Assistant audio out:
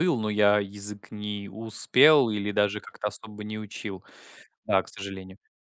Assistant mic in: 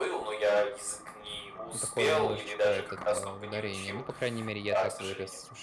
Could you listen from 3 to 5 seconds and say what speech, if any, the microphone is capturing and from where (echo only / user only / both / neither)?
both